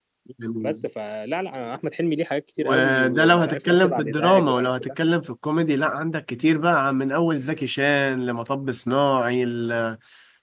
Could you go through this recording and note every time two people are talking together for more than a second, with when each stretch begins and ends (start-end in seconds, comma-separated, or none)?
2.6-4.9